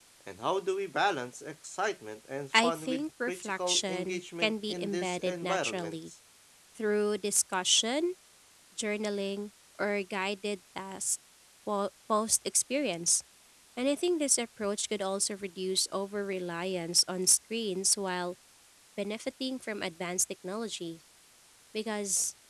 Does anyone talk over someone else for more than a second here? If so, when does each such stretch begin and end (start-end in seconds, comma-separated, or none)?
2.5-6.1